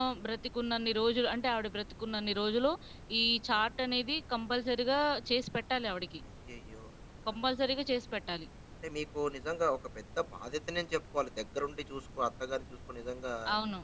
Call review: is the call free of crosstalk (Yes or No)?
Yes